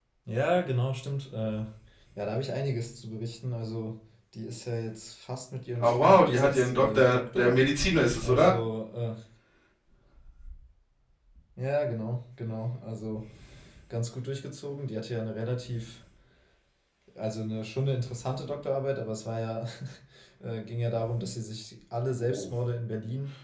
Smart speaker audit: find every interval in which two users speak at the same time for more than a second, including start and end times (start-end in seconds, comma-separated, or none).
5.8-7.6